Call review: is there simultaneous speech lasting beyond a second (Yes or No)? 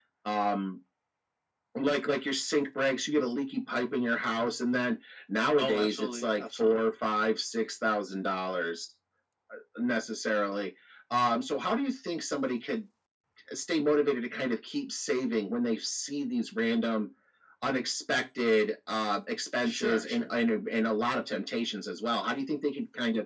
Yes